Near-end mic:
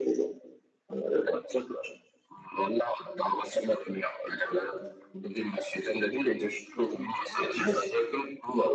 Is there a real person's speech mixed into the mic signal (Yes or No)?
No